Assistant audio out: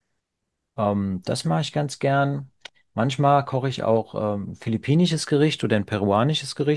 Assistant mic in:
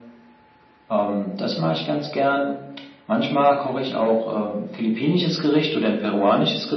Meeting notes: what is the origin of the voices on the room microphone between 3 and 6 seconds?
echo only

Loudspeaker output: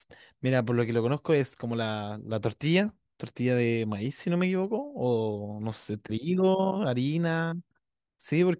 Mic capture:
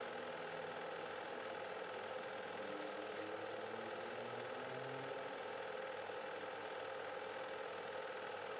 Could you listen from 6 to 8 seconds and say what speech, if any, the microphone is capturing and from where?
neither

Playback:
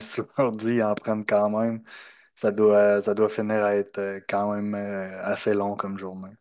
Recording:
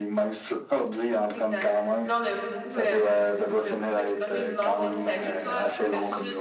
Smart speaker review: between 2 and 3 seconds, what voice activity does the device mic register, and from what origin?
both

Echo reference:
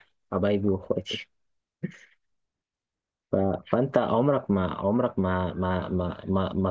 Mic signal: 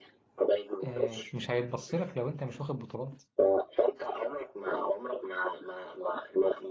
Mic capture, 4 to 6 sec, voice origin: echo only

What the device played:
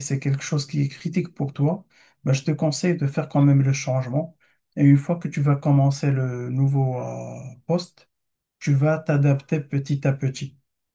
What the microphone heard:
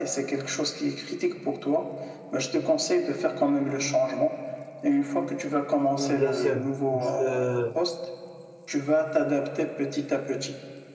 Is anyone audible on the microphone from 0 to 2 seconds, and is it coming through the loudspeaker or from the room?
echo only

